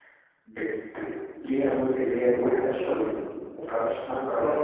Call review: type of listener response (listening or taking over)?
taking over